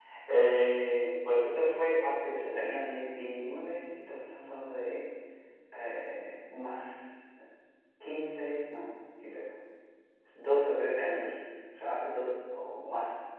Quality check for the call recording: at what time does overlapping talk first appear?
none

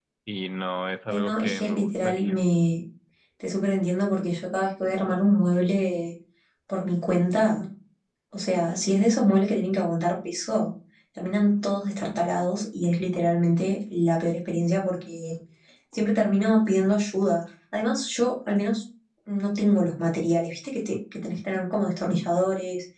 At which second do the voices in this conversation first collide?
1.1 s

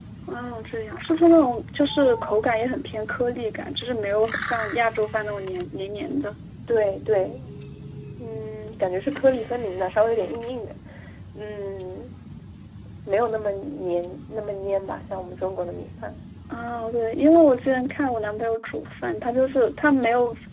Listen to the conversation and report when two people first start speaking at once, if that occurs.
none

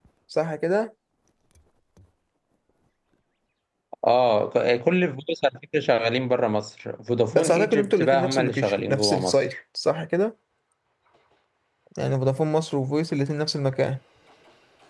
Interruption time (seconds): 7.3 s

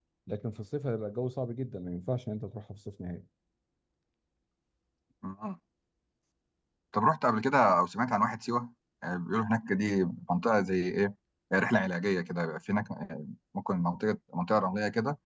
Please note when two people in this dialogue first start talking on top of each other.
none

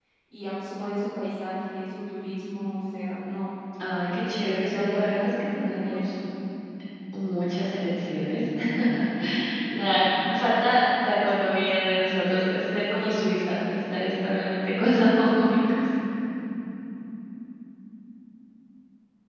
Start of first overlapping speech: 4.0 s

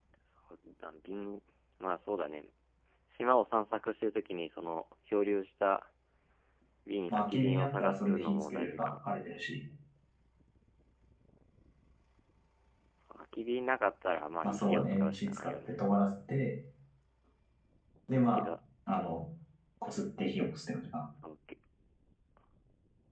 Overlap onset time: 7.1 s

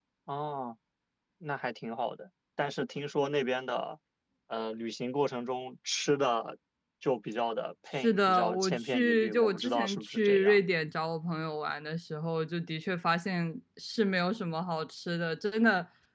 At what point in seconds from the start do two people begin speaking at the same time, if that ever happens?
7.9 s

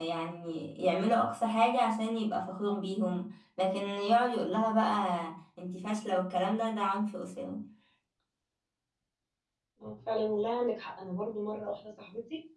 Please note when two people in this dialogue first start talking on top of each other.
none

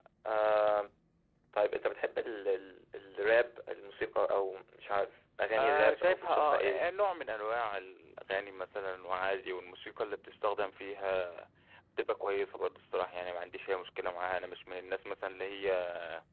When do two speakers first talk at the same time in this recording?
5.6 s

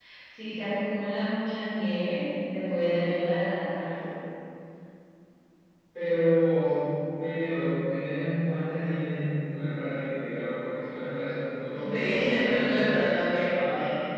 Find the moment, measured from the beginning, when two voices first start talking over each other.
11.7 s

